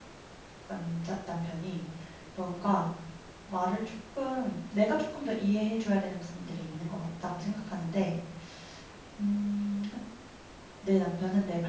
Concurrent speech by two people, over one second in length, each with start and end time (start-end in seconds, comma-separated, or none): none